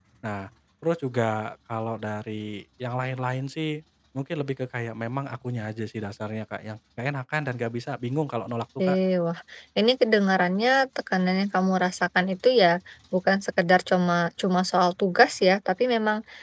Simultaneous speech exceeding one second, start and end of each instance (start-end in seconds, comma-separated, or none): none